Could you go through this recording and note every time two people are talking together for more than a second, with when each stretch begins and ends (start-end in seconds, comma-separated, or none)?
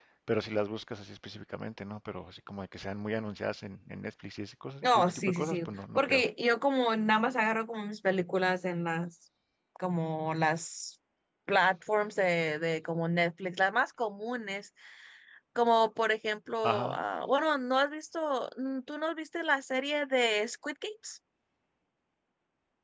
4.8-6.2